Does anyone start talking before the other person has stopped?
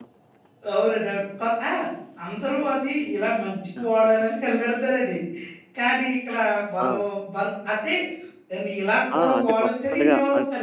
Yes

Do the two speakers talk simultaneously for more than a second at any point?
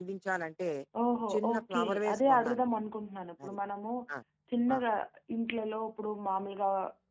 Yes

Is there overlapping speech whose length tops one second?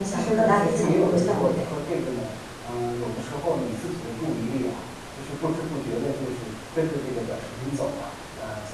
Yes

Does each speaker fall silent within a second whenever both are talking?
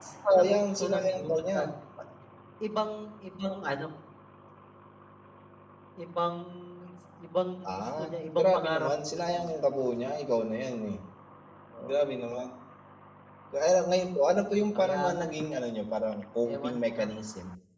No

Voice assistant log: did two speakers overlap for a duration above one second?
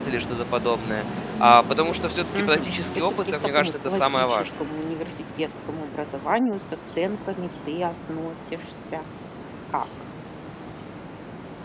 Yes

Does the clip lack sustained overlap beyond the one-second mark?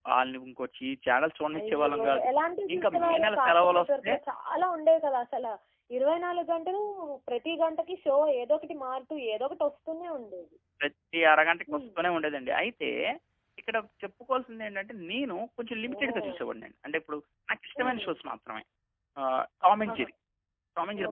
No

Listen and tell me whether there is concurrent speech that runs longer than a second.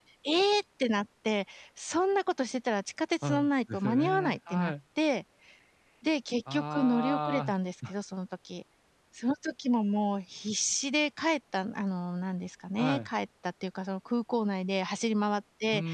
Yes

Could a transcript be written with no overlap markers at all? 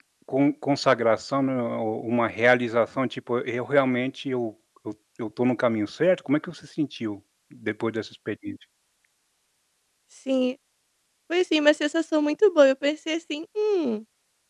Yes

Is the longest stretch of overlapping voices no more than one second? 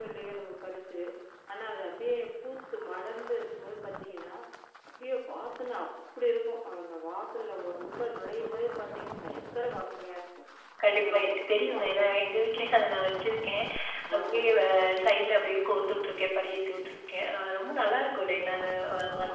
Yes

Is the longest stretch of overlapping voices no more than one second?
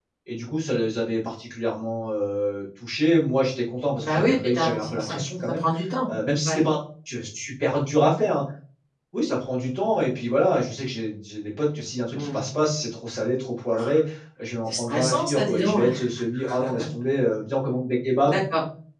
No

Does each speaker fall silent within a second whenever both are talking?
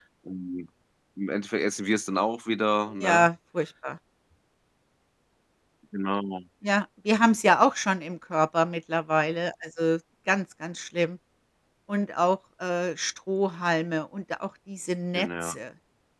Yes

